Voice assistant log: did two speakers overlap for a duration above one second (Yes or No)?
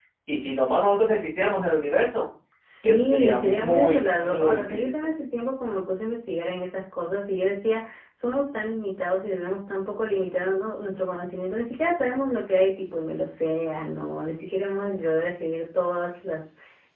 Yes